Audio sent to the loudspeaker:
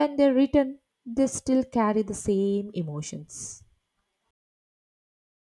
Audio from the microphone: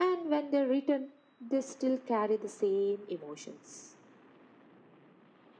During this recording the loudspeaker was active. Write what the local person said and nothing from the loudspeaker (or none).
none